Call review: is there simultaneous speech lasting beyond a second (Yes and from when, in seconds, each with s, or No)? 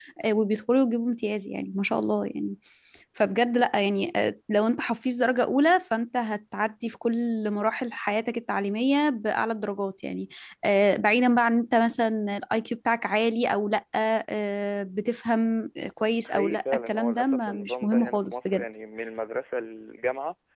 Yes, from 16.2 s